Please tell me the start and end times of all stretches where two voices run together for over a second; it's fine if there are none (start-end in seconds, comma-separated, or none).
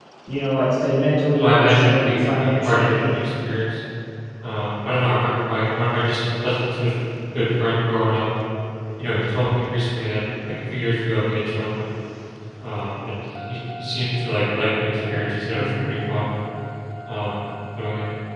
1.4-3.1